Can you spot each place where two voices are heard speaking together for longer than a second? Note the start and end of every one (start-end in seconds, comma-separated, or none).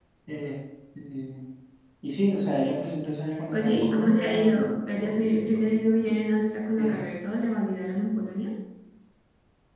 3.5-5.9